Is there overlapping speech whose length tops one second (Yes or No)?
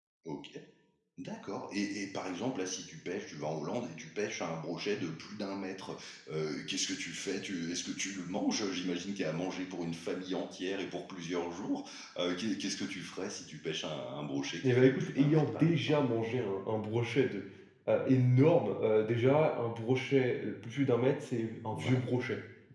Yes